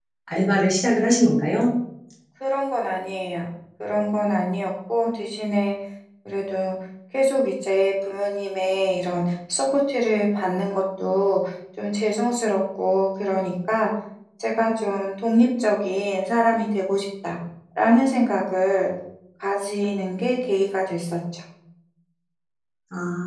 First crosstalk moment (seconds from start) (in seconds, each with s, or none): none